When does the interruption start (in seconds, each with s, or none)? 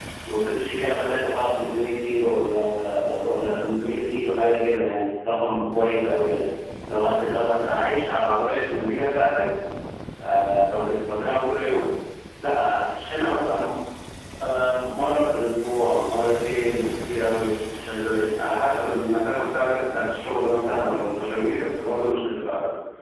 none